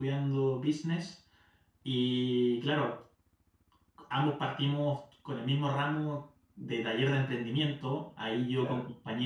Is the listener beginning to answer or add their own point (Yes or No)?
No